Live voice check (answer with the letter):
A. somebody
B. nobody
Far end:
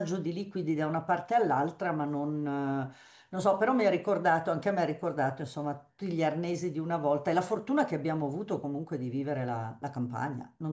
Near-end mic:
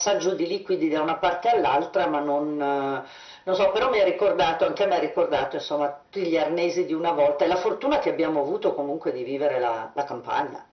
B